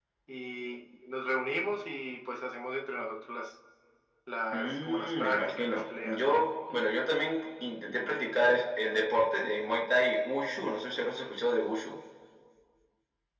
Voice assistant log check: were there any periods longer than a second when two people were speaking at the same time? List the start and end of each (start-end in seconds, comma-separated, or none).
4.5-6.4